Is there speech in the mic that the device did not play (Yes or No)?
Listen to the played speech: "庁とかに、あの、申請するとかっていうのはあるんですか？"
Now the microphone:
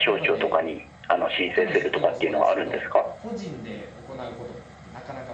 Yes